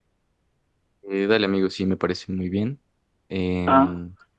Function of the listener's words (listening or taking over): listening